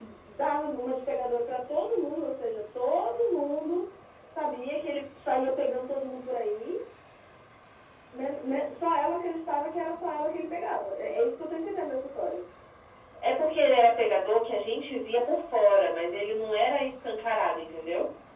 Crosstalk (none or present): none